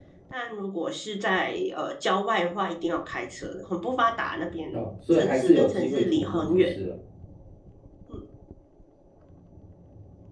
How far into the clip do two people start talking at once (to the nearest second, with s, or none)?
5 s